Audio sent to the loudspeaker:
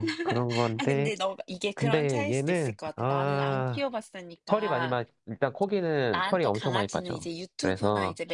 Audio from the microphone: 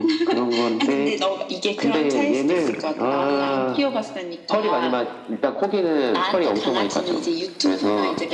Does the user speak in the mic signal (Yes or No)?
No